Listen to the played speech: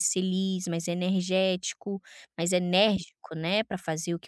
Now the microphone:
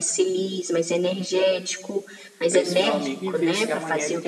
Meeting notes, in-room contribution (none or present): present